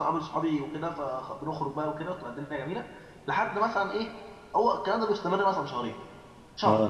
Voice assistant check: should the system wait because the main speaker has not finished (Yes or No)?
Yes